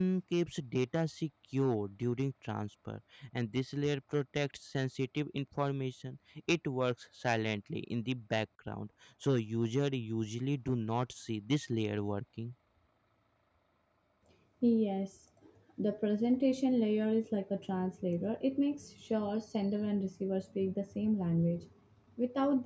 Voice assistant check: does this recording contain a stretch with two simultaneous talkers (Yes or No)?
No